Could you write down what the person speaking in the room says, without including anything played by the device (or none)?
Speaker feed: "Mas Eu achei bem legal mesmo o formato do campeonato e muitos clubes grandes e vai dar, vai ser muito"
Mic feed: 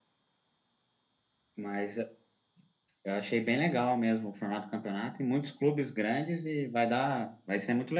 none